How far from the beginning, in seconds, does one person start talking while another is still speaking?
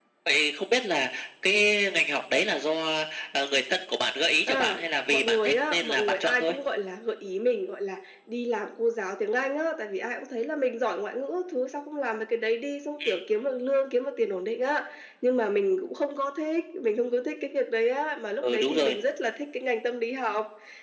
4.5 s

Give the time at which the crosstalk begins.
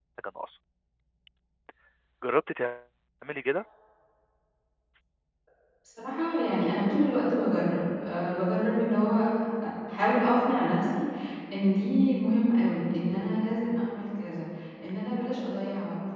none

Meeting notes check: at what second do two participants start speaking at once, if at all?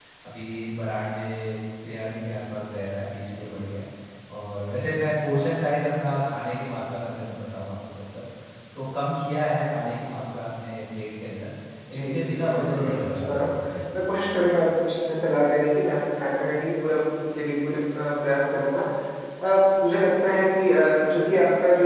11.9 s

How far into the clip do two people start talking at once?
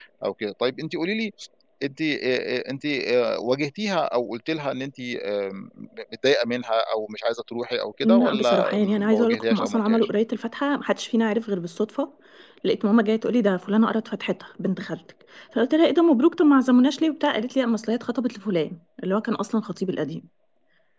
8.0 s

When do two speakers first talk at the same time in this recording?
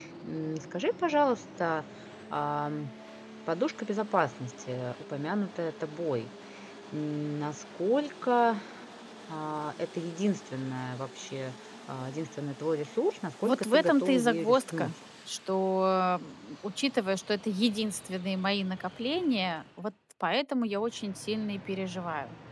13.4 s

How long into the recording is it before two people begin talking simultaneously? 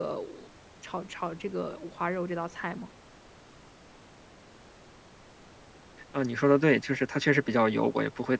none

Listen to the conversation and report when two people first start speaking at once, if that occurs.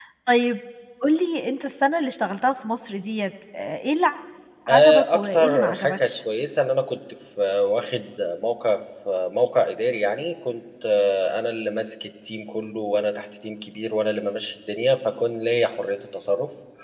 4.7 s

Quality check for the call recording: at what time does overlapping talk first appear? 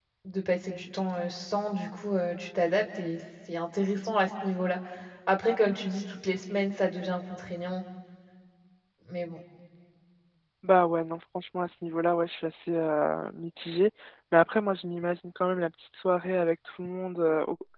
none

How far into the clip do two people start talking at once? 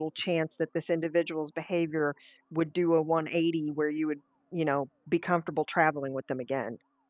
none

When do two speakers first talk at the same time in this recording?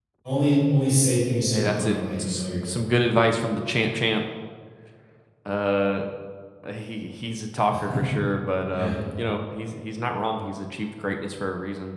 1.5 s

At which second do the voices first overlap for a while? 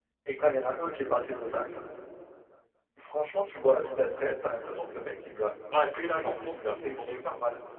5.7 s

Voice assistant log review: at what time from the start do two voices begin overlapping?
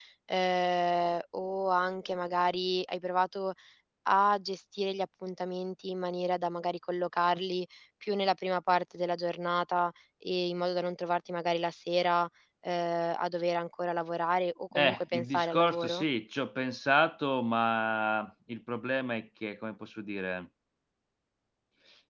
14.7 s

